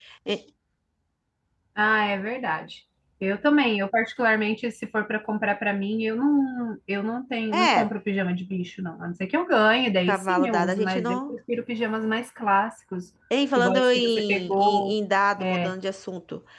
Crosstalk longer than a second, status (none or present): present